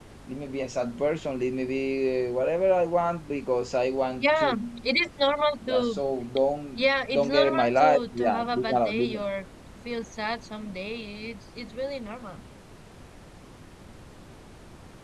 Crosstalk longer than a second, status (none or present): present